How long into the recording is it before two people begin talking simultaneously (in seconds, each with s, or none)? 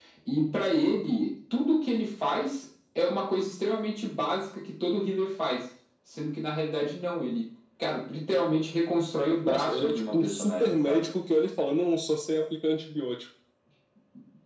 9.4 s